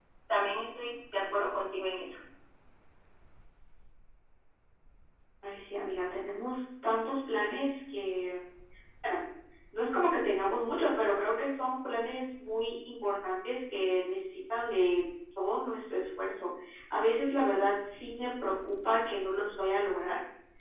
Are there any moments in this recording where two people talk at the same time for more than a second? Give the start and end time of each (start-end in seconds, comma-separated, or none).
none